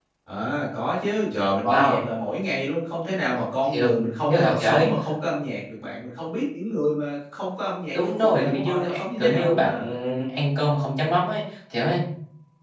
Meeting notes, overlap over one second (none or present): present